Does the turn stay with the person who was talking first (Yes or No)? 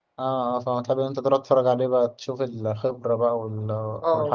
No